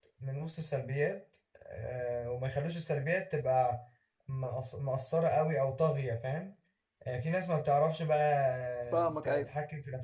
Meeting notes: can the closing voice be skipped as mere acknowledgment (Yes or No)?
Yes